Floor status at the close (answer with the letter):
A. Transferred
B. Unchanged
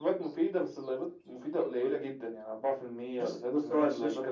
A